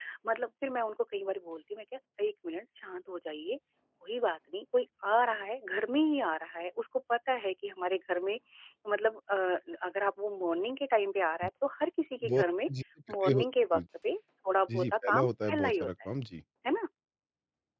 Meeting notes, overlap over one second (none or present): present